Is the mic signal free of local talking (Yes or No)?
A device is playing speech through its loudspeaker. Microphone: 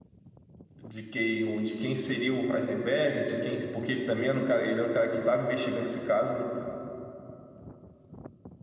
No